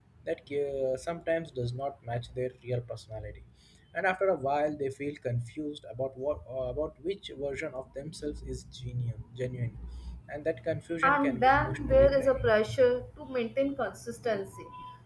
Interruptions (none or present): present